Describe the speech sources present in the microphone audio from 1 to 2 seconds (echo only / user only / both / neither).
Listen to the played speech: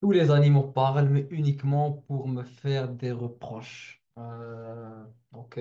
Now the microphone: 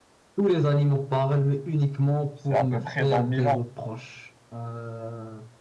echo only